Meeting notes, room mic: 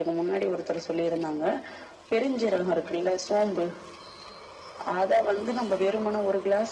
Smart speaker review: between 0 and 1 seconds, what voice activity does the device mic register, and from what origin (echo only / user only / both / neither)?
echo only